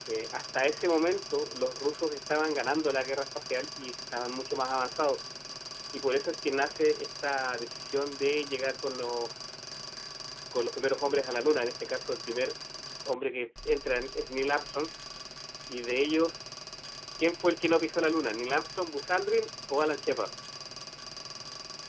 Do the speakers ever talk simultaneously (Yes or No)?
No